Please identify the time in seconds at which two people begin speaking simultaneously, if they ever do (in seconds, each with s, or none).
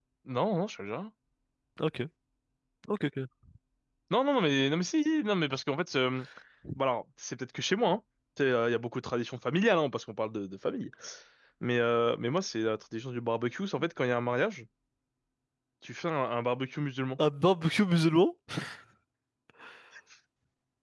none